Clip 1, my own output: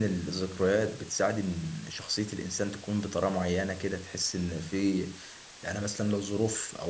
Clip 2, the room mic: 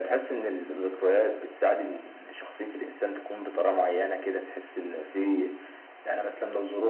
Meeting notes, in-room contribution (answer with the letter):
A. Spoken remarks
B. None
B